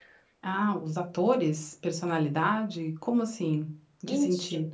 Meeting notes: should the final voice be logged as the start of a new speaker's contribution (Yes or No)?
Yes